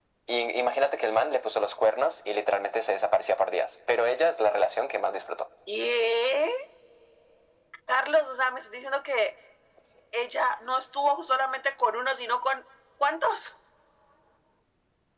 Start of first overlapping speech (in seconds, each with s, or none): none